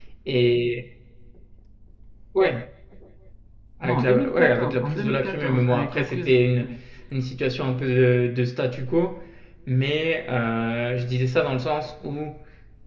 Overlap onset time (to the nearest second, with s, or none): 4 s